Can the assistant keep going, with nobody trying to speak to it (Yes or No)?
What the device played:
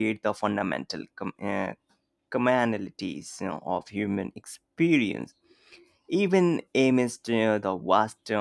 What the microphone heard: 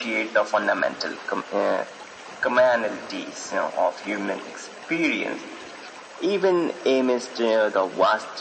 Yes